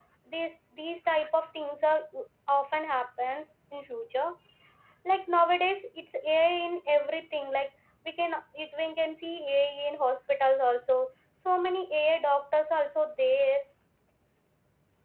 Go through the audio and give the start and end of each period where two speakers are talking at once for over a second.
none

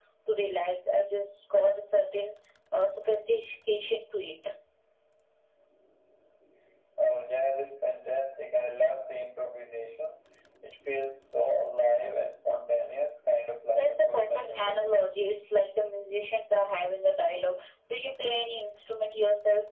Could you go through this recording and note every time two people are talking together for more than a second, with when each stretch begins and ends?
13.7-15.0

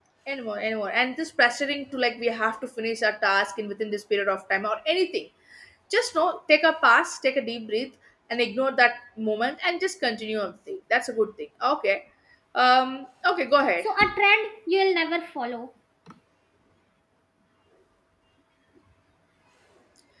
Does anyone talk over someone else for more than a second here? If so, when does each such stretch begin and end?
none

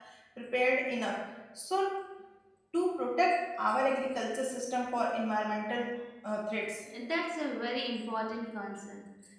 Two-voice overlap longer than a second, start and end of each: none

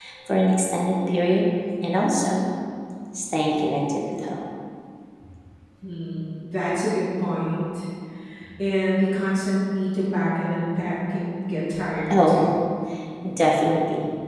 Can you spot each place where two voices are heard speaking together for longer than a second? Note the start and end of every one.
none

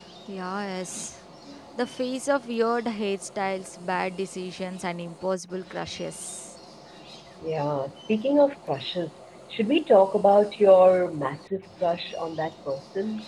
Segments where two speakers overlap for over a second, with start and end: none

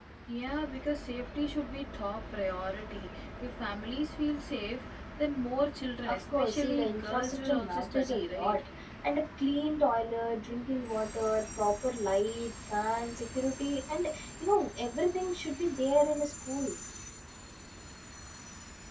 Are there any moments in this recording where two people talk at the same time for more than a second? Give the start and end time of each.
6.0-8.6

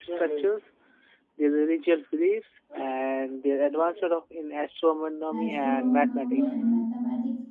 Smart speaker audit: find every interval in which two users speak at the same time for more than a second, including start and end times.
5.3-6.6

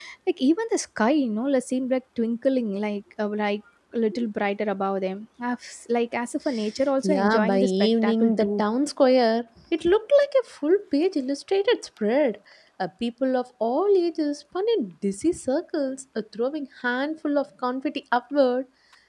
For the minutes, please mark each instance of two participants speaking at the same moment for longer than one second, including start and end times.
7.0-8.6

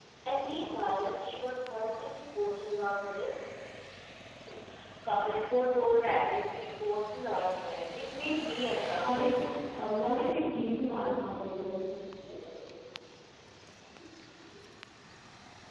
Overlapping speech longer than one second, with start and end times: none

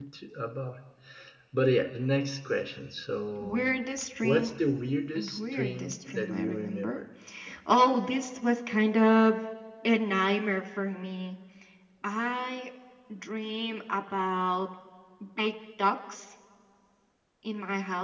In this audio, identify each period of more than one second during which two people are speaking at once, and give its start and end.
5.2-7.0

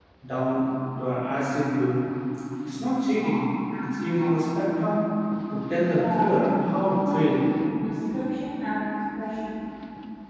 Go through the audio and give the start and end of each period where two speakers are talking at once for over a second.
5.8-7.4

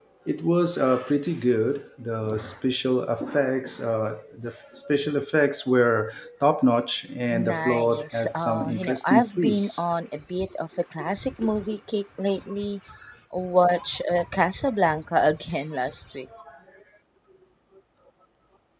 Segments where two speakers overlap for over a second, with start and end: 7.3-9.8

